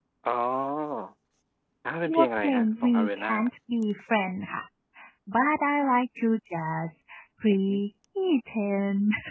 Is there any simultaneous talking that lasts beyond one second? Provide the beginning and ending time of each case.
2.0-3.3

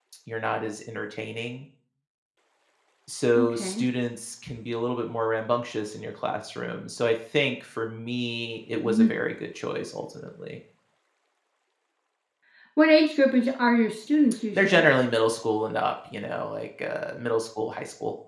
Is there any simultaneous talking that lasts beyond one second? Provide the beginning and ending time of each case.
none

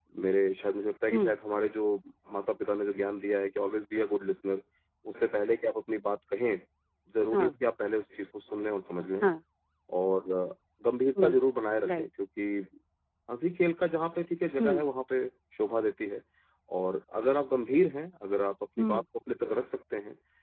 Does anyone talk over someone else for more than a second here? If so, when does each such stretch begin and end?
none

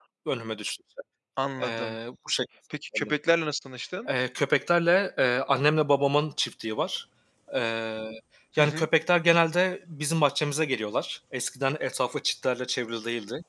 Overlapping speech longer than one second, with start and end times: none

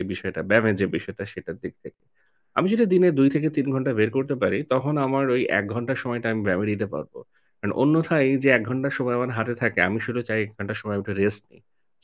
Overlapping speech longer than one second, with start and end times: none

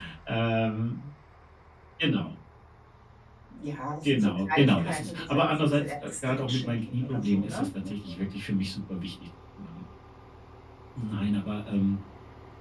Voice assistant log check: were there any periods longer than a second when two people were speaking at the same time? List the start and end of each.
4.0-7.7

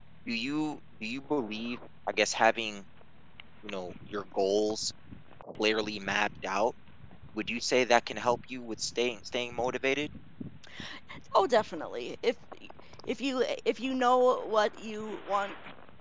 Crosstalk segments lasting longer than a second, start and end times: none

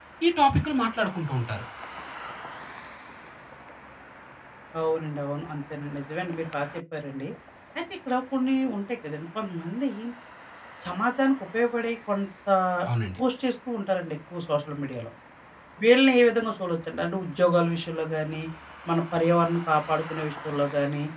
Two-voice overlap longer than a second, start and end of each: none

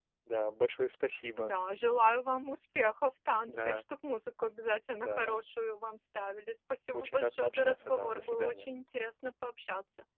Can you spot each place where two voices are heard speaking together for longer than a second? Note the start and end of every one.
6.9-8.7

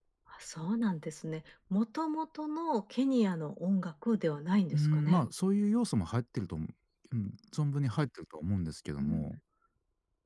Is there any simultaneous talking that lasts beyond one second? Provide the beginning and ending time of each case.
none

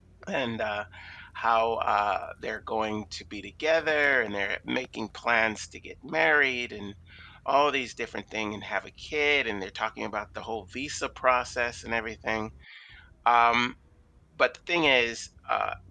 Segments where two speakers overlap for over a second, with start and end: none

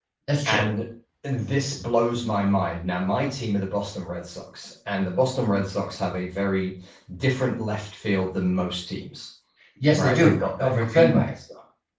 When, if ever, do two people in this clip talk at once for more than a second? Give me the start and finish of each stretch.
9.9-11.2

